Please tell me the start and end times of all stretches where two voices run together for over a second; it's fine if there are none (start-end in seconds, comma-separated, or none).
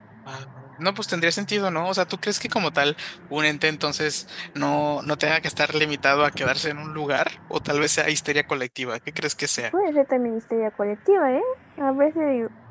none